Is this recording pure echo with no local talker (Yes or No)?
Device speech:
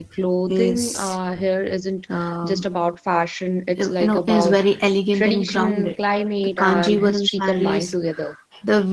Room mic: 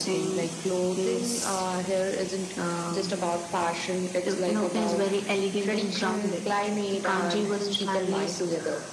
Yes